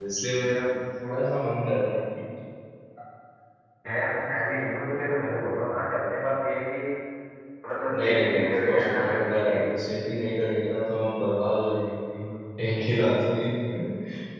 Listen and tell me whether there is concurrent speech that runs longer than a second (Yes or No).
Yes